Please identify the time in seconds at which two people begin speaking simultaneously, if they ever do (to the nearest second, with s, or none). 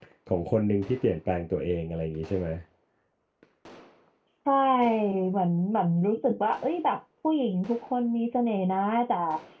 none